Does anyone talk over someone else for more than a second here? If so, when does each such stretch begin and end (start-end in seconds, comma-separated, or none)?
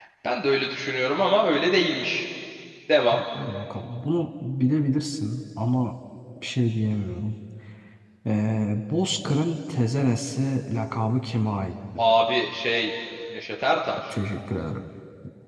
none